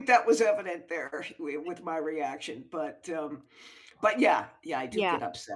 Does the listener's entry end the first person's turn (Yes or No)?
Yes